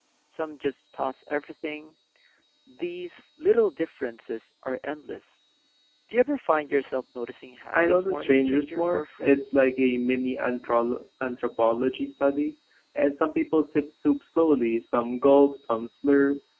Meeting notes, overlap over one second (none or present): present